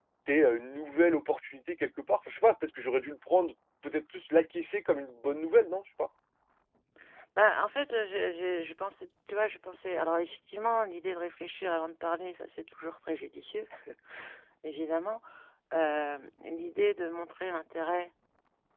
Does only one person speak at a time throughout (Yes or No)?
Yes